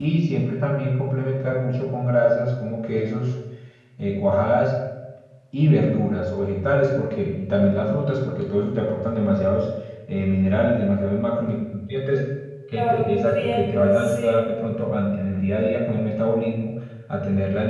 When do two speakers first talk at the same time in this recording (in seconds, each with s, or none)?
12.8 s